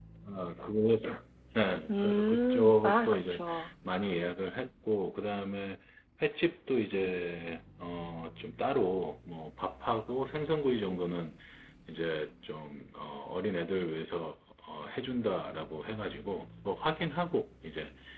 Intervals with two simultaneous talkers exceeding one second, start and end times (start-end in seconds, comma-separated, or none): 1.9-3.4